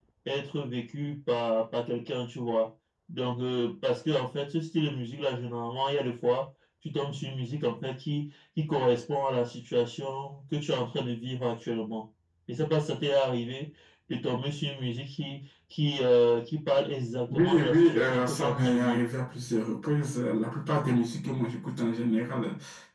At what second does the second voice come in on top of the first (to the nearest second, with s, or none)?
17 s